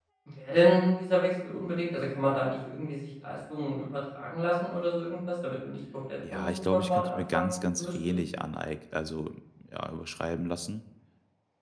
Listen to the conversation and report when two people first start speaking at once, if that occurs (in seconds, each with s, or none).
6.2 s